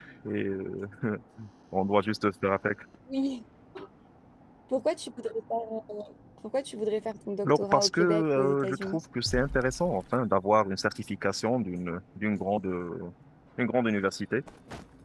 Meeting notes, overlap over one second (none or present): present